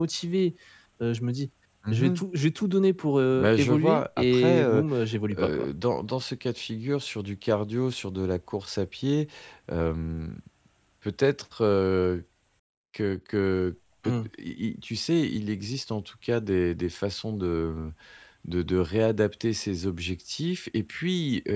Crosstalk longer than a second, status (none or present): present